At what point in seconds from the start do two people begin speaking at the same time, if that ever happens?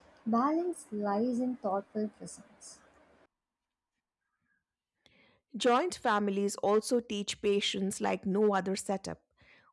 none

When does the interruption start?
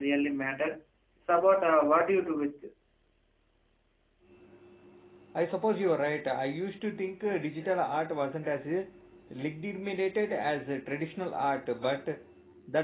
none

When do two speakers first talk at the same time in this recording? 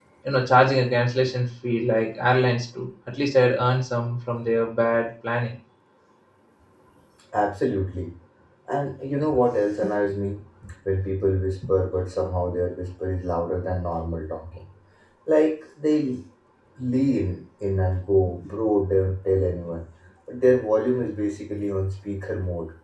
none

